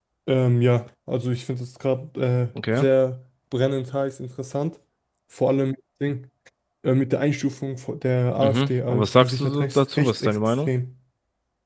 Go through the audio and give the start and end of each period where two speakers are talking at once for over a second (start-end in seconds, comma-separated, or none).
8.4-10.7